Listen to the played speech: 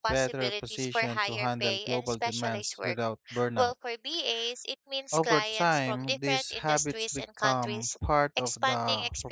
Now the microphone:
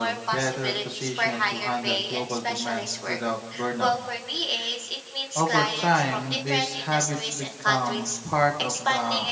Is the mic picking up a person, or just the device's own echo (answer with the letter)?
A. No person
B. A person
A